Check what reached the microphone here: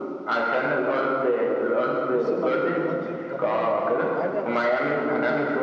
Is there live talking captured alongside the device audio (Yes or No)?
Yes